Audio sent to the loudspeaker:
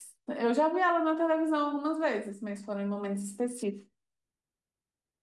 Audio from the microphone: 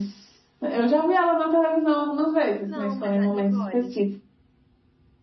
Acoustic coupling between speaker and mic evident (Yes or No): Yes